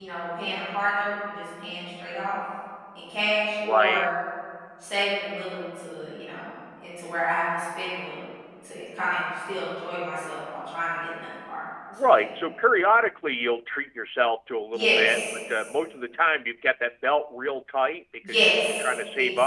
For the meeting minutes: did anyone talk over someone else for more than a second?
Yes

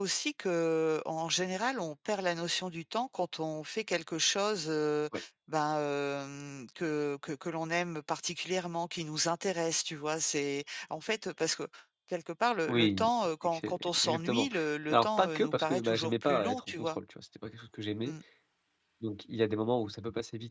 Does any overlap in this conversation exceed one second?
Yes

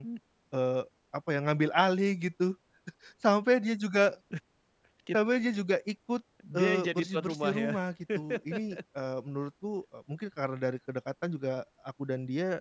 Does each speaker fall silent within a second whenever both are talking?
No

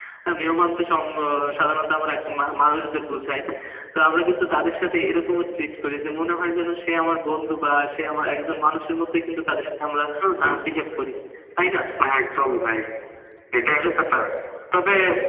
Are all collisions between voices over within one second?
Yes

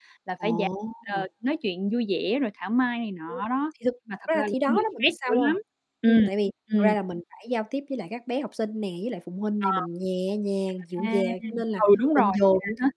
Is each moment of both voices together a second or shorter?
No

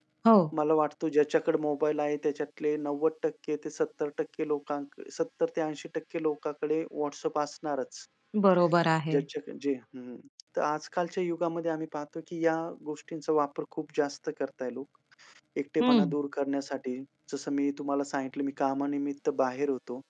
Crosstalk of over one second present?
No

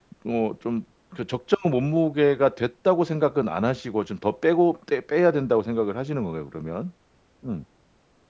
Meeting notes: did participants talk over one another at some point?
No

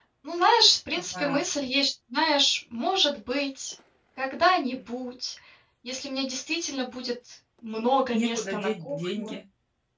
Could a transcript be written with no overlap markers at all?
No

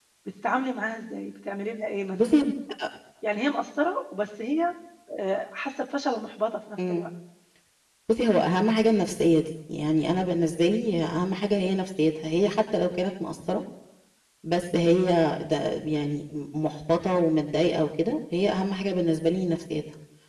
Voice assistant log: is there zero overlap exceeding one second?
Yes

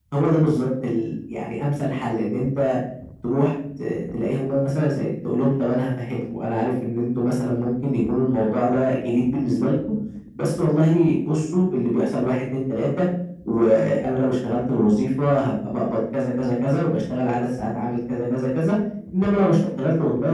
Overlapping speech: No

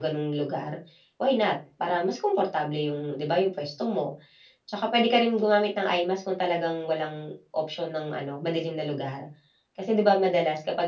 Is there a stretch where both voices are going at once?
No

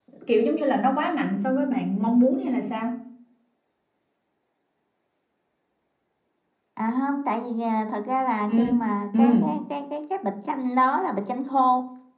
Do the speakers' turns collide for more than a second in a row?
No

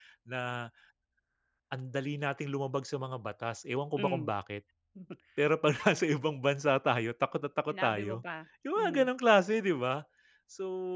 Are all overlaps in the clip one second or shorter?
Yes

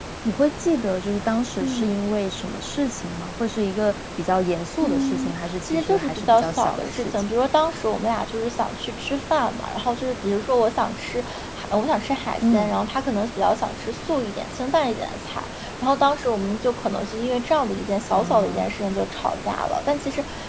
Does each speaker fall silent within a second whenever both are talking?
No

